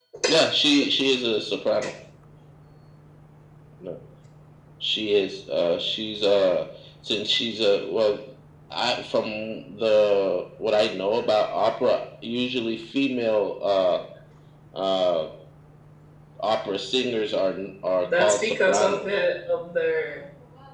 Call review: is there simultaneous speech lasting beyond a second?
Yes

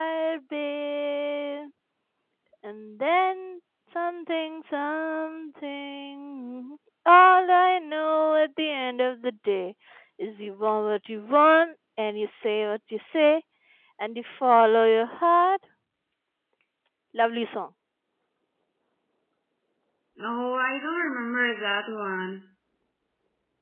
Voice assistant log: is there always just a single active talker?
Yes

